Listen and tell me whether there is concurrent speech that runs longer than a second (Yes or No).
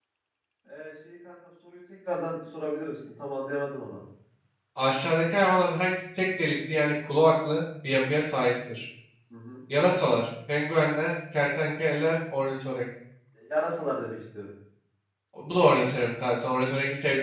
No